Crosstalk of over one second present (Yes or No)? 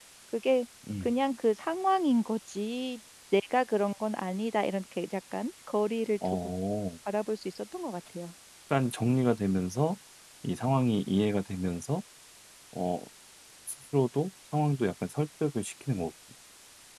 No